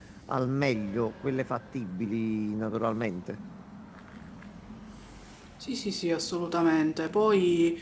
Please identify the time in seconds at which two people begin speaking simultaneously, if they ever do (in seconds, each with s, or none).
none